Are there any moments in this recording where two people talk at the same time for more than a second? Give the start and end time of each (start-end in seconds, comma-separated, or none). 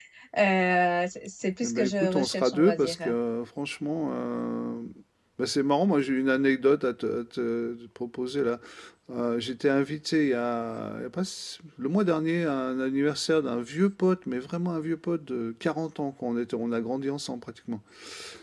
1.6-3.1